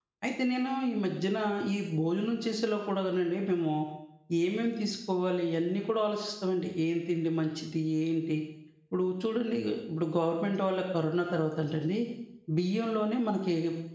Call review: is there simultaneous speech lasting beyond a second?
No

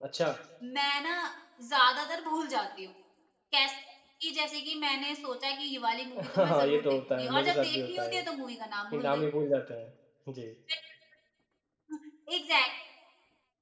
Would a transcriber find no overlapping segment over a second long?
No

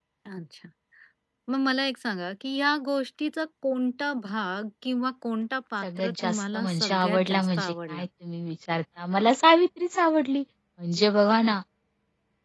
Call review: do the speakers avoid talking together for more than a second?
No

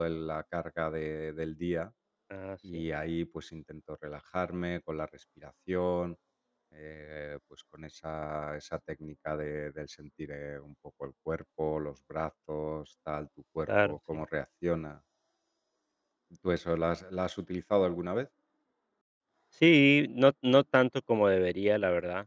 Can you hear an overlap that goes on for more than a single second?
No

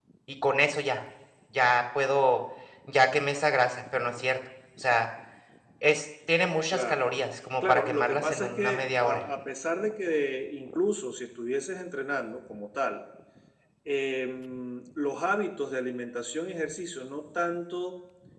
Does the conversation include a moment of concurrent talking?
Yes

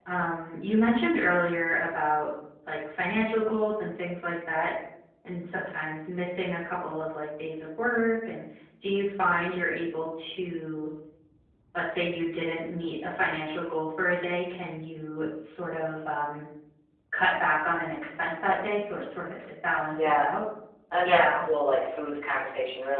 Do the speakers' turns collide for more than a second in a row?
No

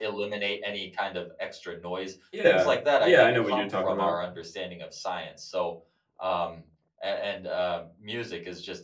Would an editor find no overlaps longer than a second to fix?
No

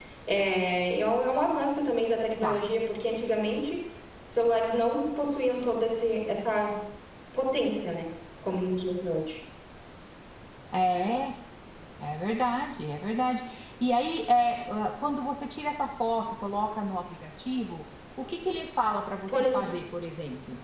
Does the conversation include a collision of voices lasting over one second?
No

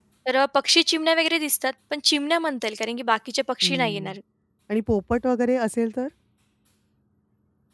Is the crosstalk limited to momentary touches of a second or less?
Yes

